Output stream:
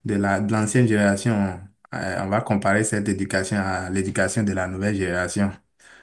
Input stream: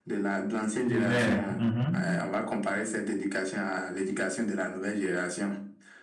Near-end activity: present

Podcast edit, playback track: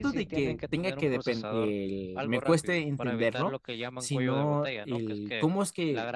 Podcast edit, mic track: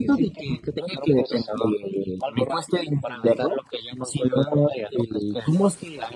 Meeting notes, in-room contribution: none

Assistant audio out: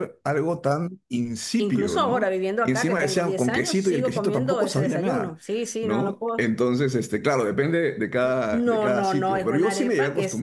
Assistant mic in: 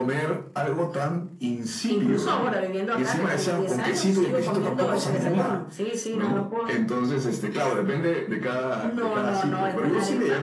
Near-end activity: none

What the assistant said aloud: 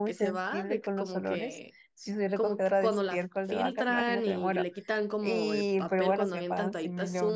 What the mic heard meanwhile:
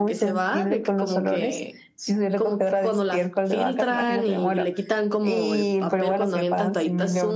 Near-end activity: none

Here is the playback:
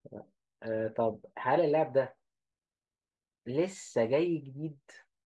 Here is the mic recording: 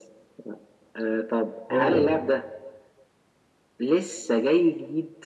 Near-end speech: present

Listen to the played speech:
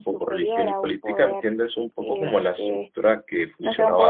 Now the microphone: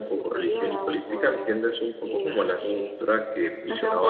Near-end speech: none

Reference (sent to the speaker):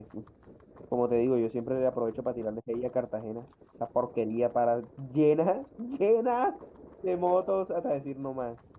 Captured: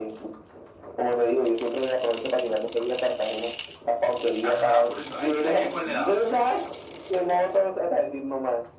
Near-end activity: present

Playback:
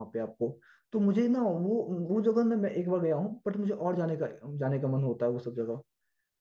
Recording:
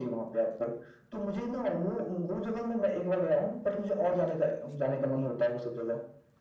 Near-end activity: none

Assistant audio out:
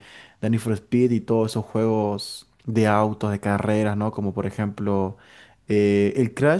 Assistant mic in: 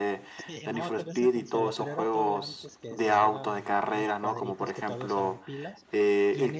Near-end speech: present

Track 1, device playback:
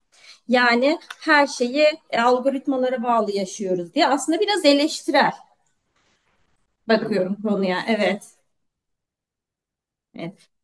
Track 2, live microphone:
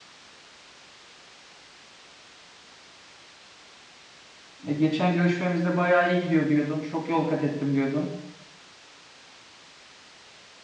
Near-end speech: present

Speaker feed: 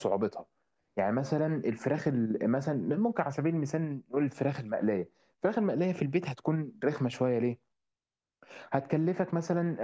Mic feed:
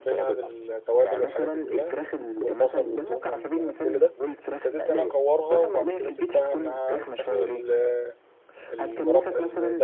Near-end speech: present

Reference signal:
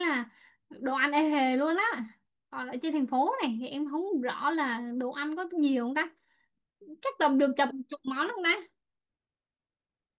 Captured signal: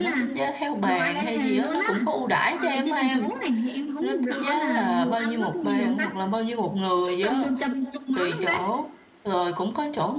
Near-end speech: present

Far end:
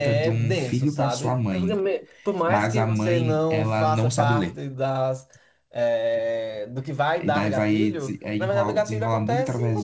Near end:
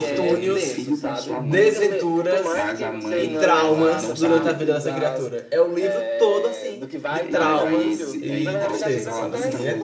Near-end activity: present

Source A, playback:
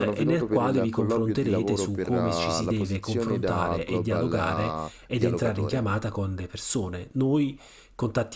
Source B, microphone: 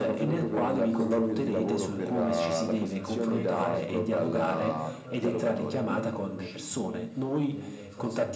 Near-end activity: present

